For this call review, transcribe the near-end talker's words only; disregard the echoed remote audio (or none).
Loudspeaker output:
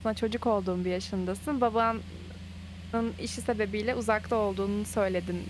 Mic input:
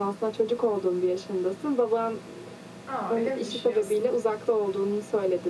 A, öyle mi düşünüyorsun?